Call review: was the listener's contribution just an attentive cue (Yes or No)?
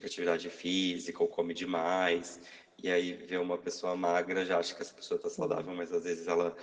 Yes